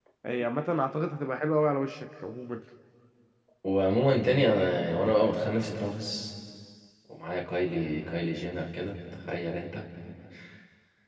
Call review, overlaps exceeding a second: none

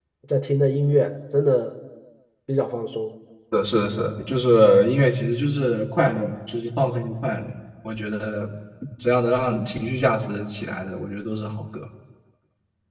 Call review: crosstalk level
none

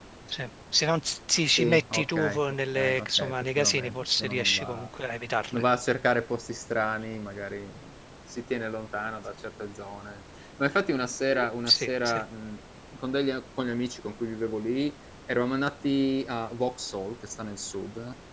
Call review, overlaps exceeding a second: present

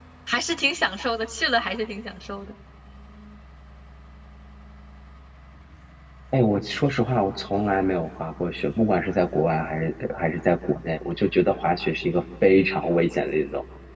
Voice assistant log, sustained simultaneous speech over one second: none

